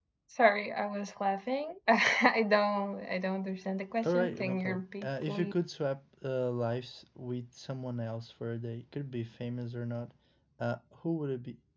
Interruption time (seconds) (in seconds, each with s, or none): 4.0 s